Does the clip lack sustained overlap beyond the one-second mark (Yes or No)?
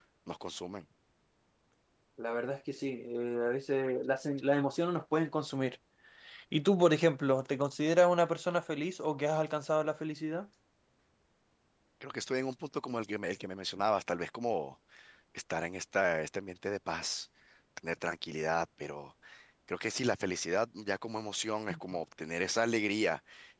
Yes